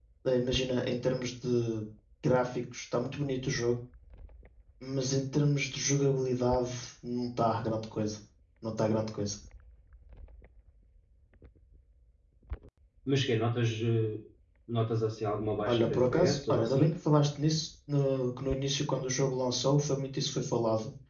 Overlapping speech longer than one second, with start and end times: 15.7-16.9

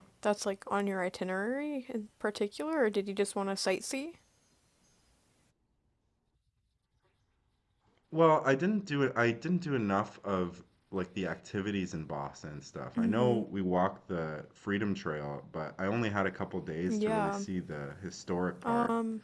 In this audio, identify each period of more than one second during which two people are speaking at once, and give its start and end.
none

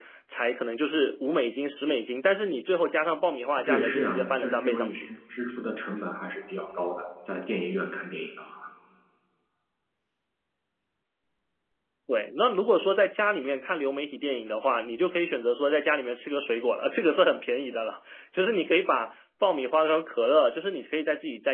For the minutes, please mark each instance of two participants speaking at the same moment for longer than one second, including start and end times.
3.6-5.1

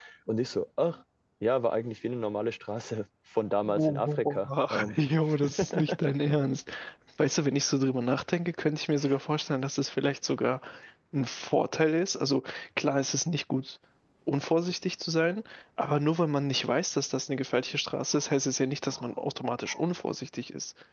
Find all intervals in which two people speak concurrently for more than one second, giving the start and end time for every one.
3.6-5.0

